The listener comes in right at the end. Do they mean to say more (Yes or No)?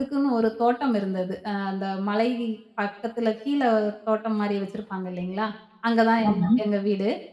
No